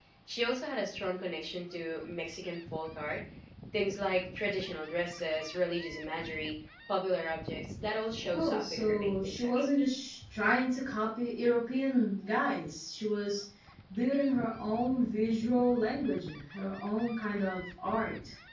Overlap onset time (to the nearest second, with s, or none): 8 s